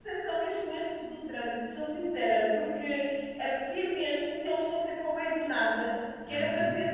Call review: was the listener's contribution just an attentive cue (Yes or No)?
Yes